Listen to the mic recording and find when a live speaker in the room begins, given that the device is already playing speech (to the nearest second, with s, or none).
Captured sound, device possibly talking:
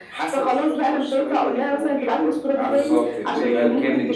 3 s